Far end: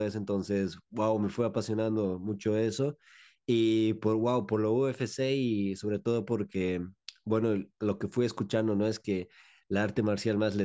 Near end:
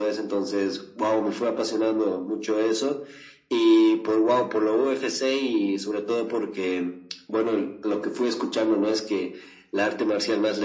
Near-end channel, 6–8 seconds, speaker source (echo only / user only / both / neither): echo only